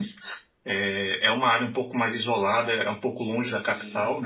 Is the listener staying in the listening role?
Yes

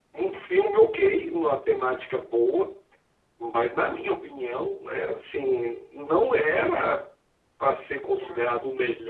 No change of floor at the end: Yes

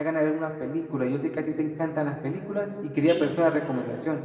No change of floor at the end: Yes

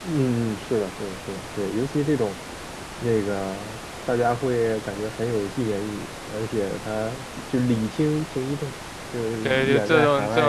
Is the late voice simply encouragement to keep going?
No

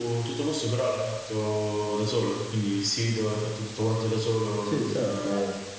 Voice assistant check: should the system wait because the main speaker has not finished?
No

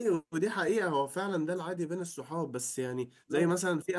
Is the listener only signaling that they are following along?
Yes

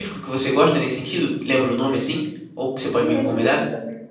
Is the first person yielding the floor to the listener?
Yes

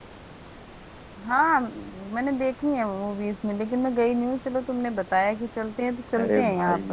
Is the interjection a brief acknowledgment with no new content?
No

